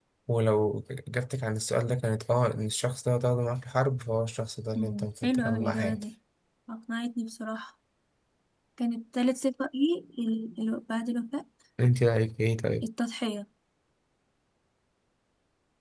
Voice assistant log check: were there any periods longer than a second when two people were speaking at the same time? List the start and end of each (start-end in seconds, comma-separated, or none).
4.8-6.0